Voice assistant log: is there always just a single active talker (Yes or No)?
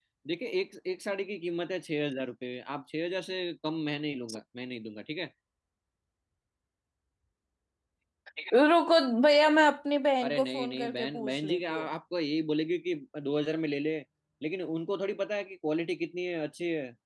No